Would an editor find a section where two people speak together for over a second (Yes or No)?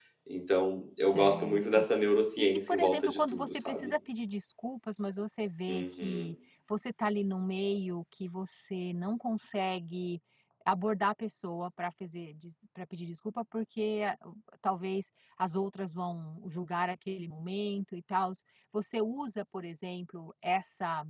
Yes